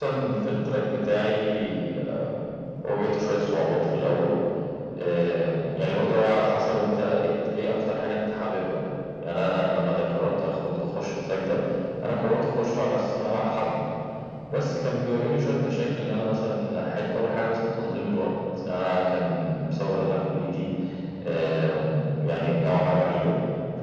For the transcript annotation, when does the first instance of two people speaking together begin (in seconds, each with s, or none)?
none